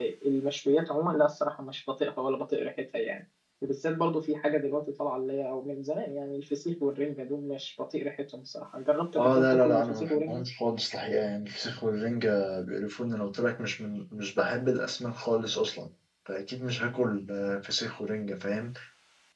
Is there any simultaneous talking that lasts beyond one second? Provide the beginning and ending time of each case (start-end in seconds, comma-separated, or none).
9.2-10.4